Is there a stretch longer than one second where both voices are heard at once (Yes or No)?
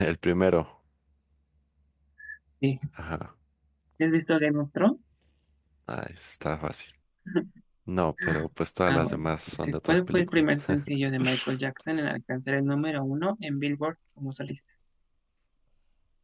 Yes